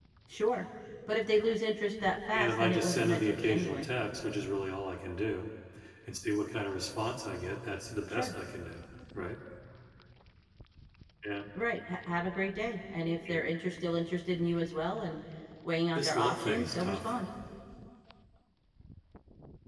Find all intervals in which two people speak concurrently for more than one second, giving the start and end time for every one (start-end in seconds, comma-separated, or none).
2.3-3.9, 15.9-17.2